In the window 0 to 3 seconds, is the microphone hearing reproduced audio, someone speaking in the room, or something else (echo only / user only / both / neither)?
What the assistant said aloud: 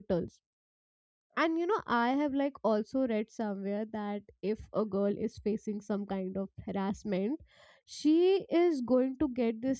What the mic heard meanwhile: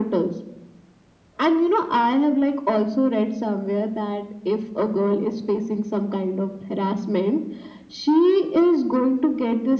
echo only